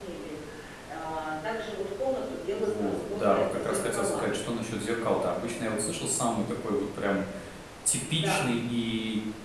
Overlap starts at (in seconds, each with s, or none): 2.5 s